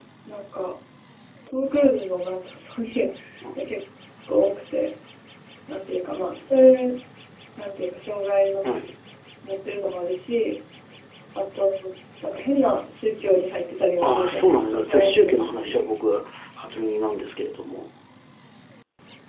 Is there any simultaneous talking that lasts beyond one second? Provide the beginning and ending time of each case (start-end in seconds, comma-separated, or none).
14.0-15.9